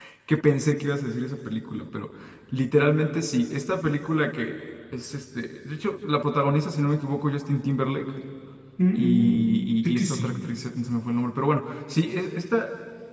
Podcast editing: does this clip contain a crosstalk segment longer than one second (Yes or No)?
Yes